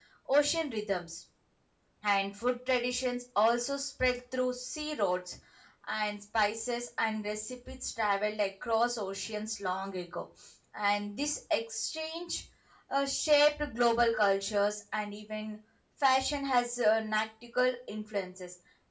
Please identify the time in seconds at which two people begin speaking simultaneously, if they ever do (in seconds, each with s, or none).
none